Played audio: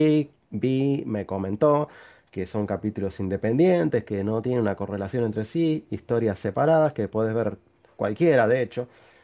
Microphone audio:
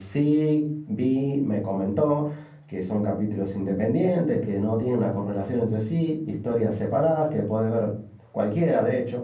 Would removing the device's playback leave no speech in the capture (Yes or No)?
Yes